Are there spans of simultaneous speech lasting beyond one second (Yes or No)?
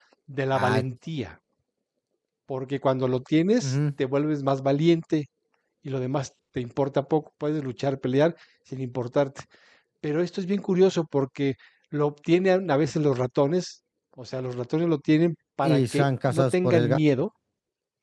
Yes